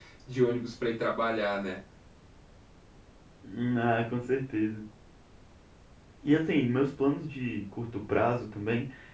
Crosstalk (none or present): none